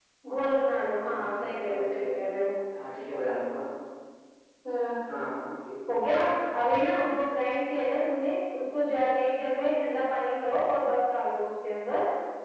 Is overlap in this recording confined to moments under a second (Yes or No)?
No